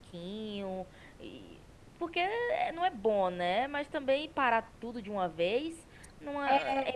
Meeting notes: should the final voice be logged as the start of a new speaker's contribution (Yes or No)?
Yes